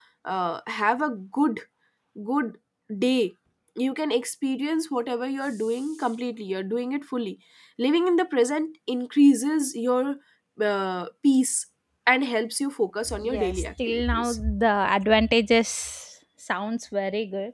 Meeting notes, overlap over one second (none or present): present